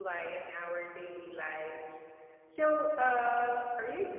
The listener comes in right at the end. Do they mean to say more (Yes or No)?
No